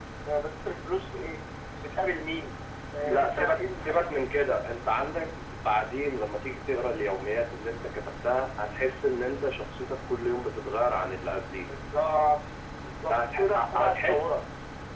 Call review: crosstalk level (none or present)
present